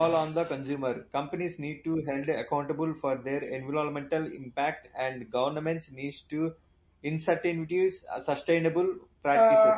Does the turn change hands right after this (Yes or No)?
Yes